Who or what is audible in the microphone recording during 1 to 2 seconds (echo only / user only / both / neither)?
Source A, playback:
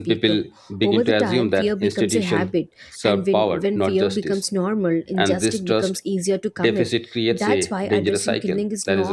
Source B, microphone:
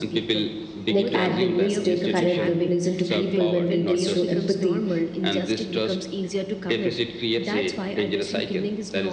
both